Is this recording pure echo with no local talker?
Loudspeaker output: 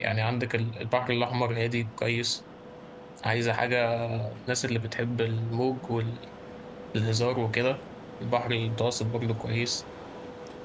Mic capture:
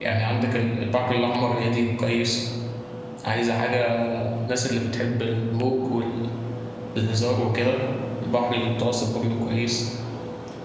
Yes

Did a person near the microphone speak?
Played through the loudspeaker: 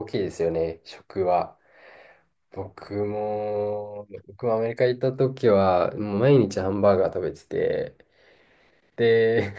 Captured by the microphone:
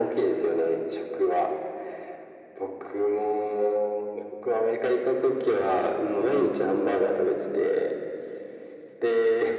No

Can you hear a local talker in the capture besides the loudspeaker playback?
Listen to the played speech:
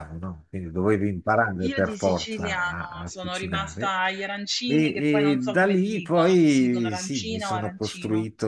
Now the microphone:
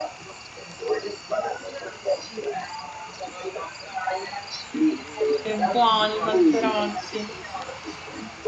Yes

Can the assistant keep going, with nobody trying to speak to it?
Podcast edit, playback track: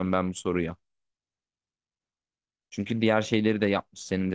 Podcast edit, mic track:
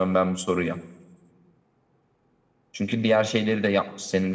Yes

